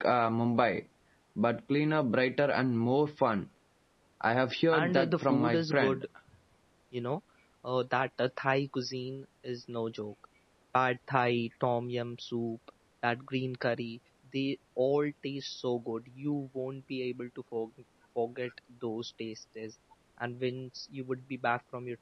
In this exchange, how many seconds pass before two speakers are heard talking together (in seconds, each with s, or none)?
4.7 s